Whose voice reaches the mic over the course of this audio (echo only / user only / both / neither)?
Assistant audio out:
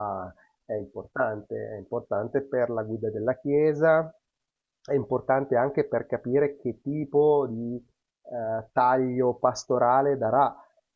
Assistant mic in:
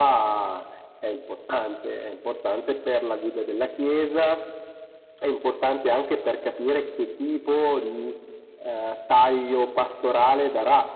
echo only